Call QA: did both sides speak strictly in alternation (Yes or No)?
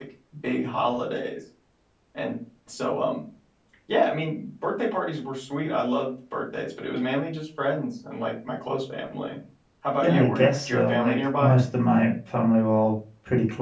No